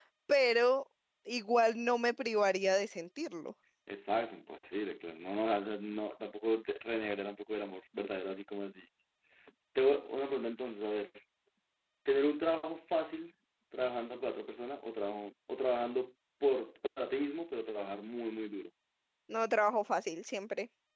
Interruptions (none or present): none